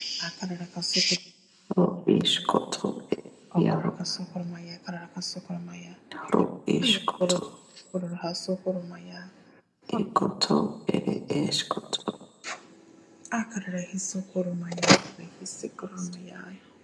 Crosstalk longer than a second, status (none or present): none